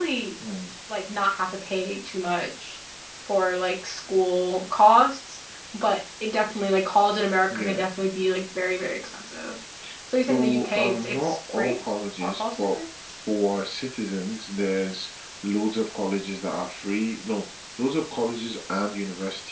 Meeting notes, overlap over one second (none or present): present